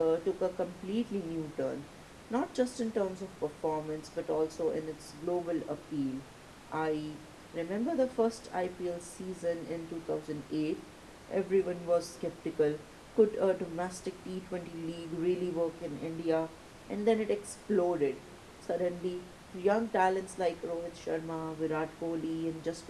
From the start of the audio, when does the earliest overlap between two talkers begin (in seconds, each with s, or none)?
none